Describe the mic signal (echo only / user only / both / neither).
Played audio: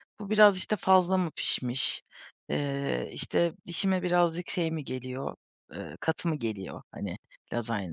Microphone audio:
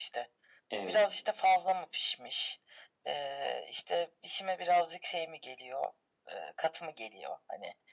both